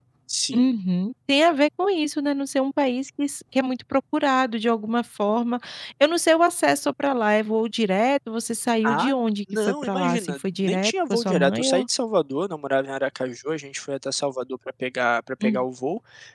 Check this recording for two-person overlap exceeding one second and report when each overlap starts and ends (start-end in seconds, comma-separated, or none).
9.5-11.8